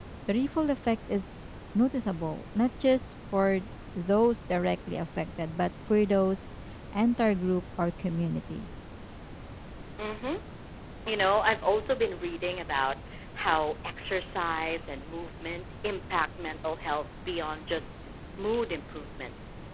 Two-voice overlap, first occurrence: none

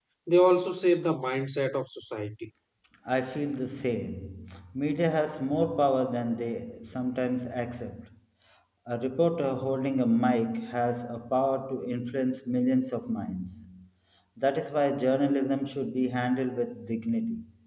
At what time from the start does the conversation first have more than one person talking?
none

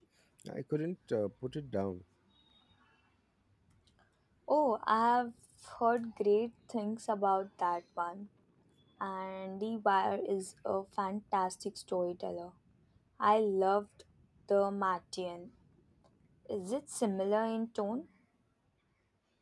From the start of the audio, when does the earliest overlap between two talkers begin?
none

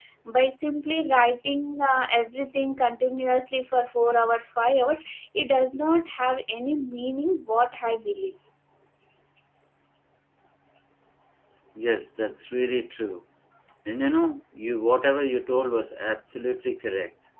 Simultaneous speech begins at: none

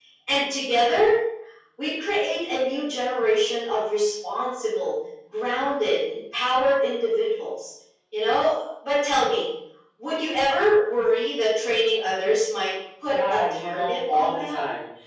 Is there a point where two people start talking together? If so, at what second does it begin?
13.1 s

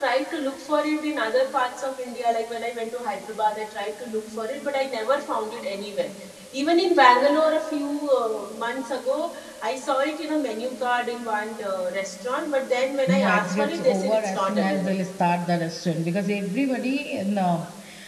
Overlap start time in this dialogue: 13.1 s

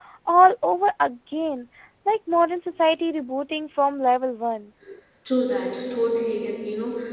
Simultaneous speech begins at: none

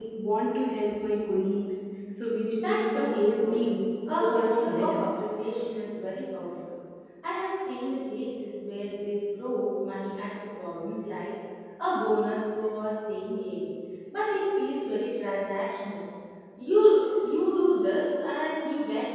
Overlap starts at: 2.5 s

